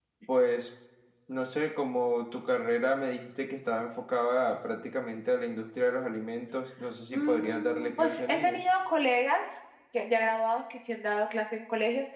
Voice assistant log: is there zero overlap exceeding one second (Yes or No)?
No